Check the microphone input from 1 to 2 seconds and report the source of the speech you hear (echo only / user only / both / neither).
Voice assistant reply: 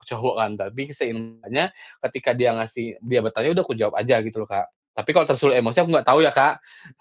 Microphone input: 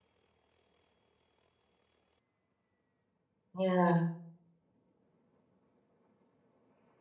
neither